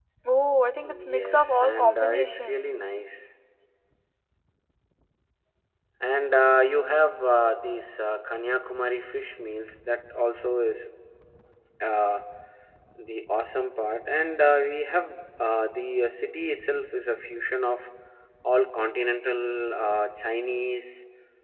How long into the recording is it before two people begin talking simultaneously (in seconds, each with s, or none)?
0.9 s